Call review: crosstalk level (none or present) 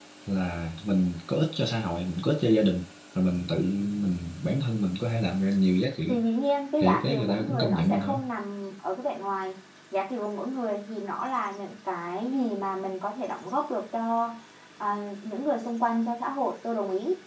present